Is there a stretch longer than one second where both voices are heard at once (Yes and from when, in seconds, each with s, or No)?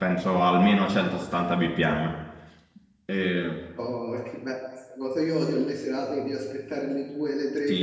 No